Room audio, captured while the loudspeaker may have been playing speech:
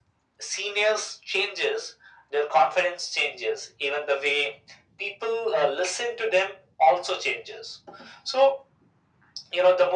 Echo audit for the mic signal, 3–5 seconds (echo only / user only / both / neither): echo only